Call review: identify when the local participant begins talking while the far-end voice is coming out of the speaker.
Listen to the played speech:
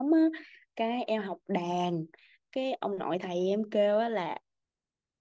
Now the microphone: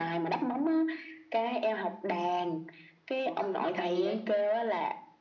3.2 s

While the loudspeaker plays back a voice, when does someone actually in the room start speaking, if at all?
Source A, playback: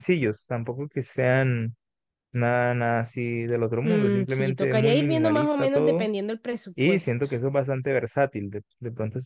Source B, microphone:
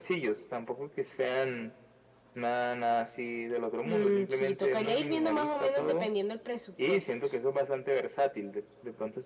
none

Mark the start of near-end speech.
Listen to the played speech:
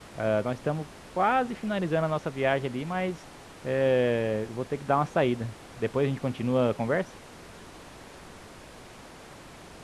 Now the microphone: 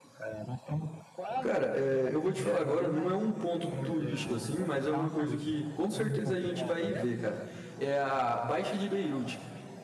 1.4 s

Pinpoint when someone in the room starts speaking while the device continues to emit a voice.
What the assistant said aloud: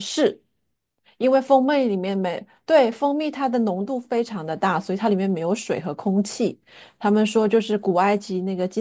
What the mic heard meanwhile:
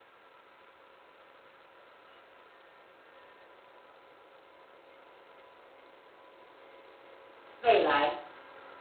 7.6 s

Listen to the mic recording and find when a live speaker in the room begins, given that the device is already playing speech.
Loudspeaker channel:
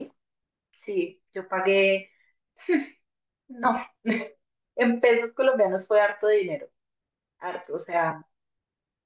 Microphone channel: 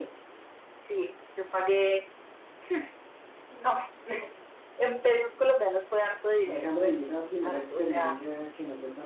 6.4 s

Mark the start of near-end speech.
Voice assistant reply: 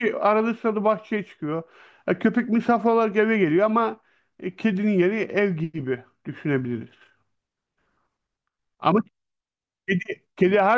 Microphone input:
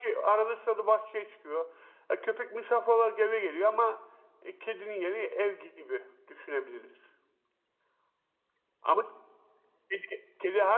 none

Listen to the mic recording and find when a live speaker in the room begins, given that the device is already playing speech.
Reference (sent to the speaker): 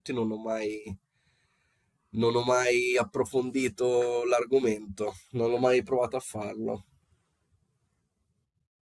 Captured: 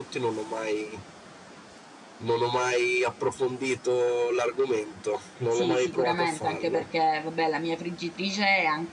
5.4 s

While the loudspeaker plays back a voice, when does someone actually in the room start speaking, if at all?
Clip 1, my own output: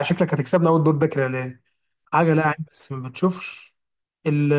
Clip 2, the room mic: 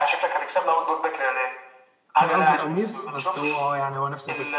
2.2 s

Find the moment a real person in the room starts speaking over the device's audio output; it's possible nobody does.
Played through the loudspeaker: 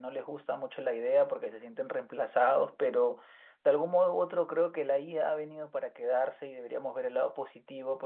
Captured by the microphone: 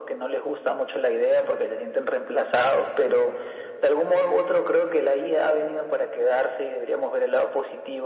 none

